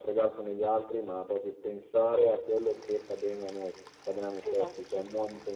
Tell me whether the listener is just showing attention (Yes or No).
Yes